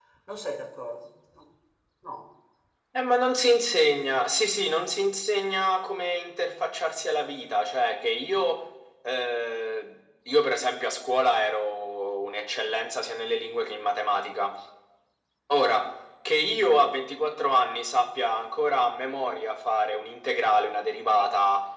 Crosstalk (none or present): none